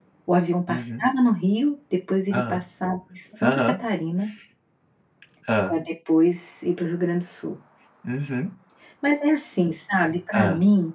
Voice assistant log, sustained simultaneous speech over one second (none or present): none